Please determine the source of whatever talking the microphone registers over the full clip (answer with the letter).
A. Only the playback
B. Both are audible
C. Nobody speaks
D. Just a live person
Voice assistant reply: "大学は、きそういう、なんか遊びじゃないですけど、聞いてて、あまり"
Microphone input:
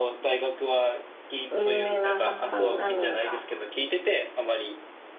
B